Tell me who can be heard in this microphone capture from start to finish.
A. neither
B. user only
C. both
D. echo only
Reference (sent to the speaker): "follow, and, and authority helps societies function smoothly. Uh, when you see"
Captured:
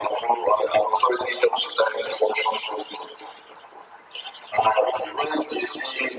D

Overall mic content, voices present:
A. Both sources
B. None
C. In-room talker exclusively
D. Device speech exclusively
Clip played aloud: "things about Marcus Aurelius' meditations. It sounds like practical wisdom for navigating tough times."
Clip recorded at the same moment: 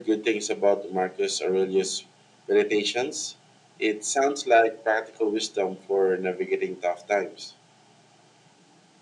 D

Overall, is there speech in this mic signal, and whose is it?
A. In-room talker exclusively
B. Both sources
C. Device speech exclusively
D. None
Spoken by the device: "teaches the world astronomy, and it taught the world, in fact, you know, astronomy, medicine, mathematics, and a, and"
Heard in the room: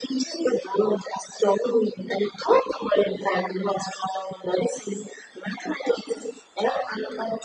C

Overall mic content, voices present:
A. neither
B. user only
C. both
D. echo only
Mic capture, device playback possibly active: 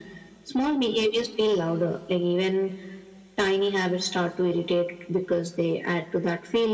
D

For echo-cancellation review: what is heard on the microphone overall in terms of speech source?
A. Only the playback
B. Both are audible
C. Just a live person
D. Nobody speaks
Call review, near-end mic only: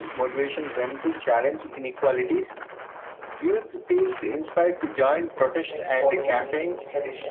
B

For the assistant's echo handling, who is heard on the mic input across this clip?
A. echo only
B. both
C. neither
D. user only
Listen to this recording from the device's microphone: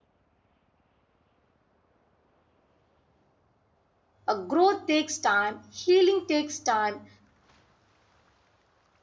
D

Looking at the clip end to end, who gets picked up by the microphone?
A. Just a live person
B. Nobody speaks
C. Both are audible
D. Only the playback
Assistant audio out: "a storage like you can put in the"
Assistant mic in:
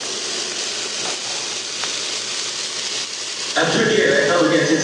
A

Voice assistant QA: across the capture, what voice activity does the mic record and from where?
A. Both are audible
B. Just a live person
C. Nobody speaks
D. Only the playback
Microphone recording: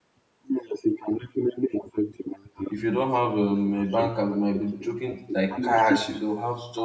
A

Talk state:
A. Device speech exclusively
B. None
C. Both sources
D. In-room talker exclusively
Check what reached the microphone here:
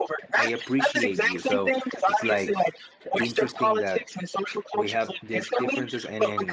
C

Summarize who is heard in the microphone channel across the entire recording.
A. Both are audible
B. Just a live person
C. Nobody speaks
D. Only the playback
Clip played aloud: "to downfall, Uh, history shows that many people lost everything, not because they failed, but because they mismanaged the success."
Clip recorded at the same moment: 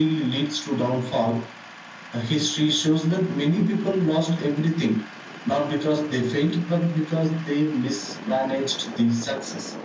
D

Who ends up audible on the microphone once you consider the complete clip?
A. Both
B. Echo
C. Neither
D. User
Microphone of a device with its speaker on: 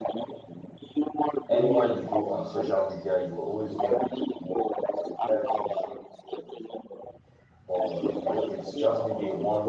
A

